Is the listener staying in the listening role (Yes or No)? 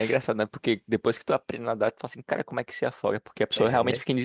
Yes